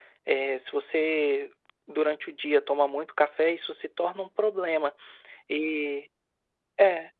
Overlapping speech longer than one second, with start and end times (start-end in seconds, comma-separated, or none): none